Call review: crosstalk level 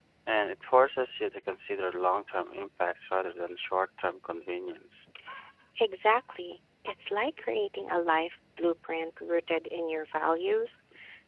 none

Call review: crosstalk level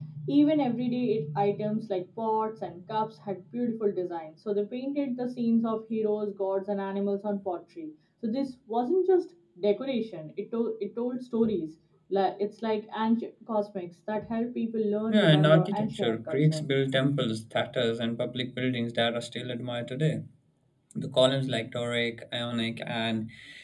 present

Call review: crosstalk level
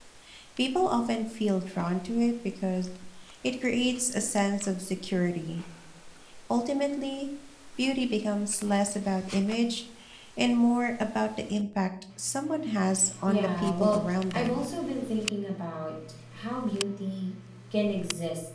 present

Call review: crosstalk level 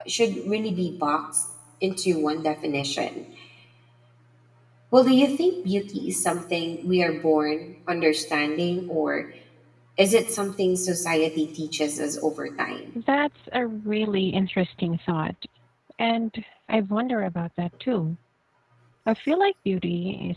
none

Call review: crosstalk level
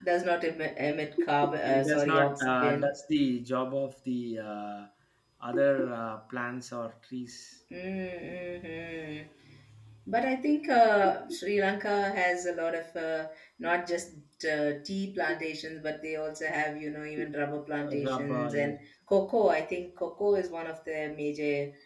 present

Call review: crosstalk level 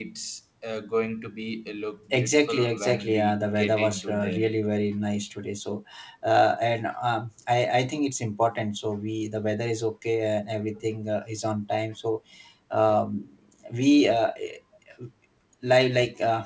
present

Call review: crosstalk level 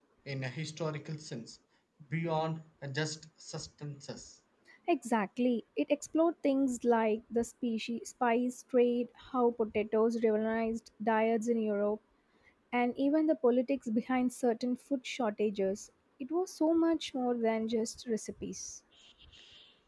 none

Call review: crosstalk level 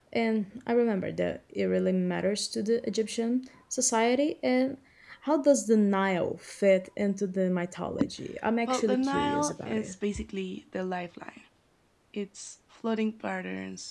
present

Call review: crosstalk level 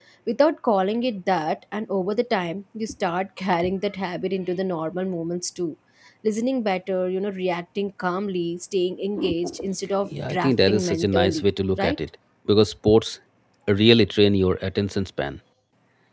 present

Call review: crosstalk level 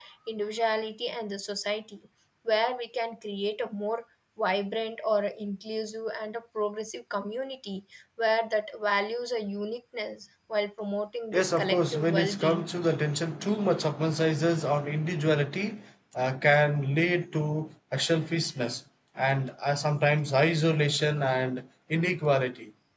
present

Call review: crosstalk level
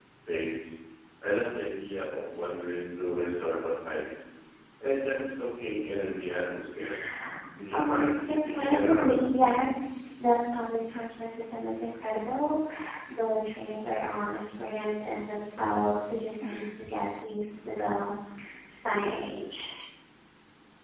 present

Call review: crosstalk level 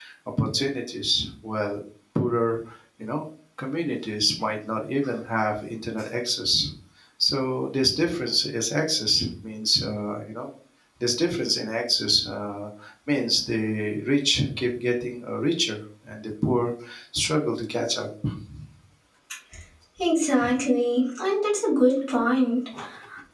none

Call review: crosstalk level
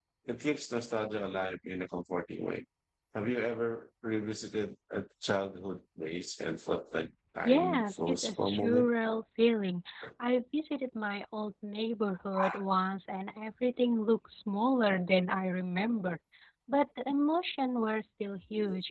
present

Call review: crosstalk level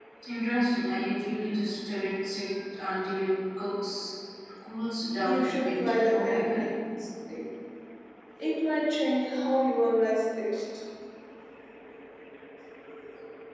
present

